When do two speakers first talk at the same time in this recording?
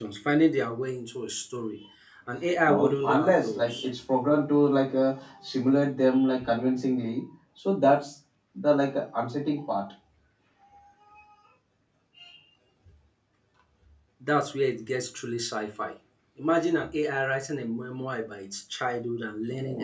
2.6 s

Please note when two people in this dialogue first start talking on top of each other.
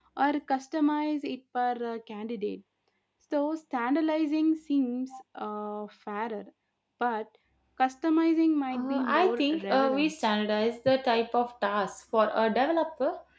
8.7 s

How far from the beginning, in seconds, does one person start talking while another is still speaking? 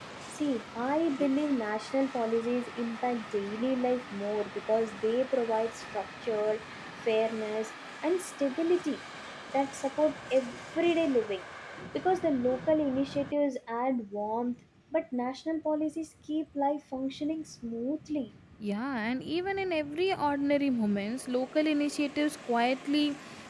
none

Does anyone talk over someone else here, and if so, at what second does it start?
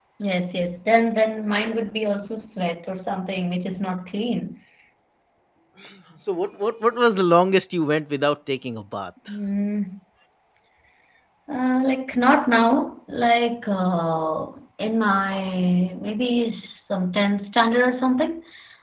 none

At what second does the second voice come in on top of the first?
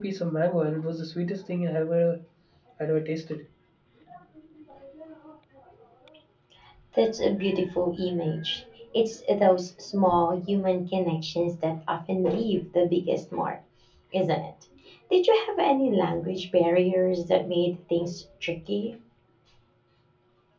none

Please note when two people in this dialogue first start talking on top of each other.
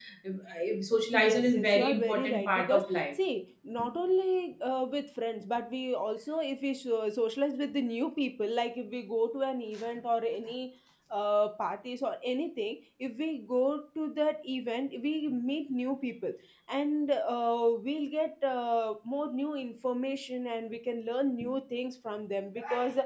1.1 s

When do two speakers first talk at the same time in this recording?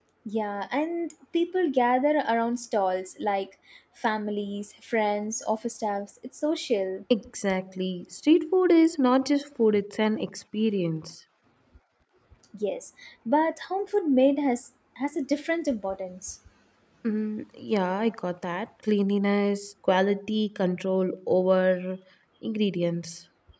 none

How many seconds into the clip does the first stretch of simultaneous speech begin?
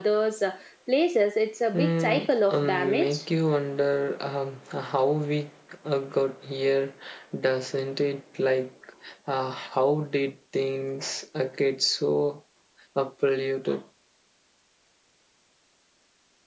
1.7 s

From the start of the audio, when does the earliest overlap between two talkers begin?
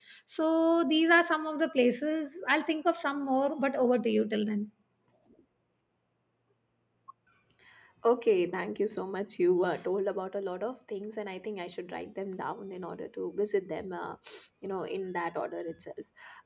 none

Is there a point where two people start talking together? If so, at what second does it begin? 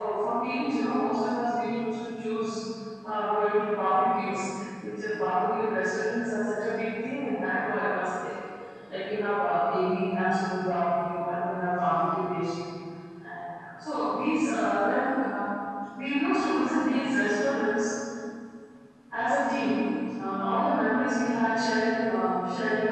none

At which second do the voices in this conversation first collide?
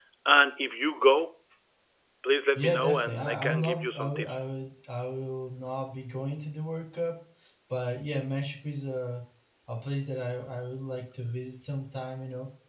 2.5 s

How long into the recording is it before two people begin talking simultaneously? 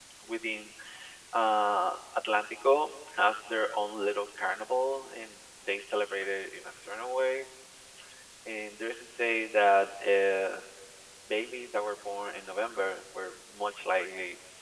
none

